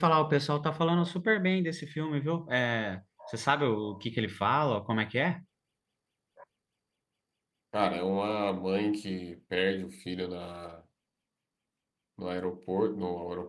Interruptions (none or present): none